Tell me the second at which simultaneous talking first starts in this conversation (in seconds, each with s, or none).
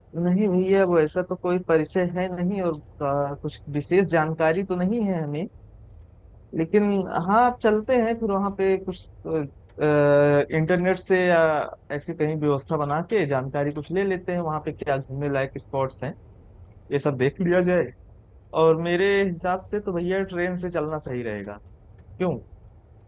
none